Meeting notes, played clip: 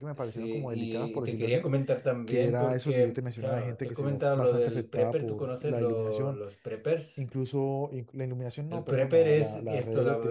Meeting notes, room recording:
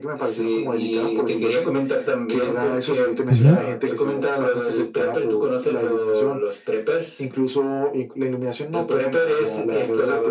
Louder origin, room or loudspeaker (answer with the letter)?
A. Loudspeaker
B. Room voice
B